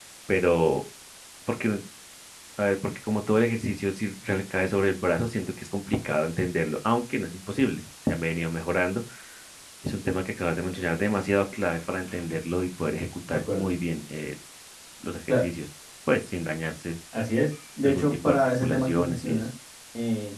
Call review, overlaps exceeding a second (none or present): present